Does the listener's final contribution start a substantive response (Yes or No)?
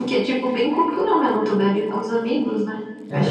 Yes